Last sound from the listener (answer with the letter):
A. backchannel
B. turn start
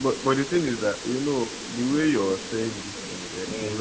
A